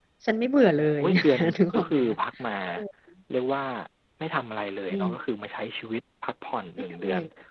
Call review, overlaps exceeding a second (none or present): present